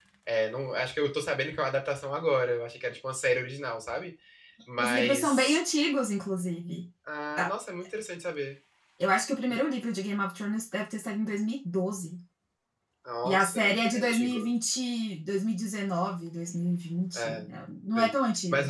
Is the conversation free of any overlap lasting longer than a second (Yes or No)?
No